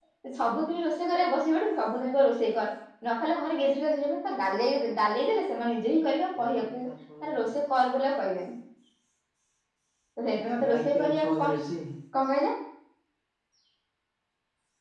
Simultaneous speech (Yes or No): Yes